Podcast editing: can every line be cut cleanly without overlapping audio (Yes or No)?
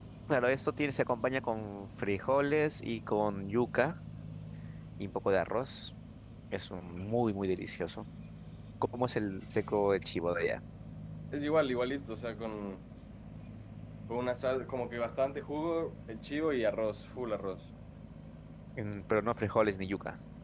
Yes